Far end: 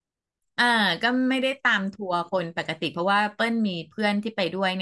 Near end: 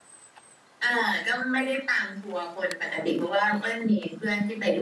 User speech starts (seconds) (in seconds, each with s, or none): none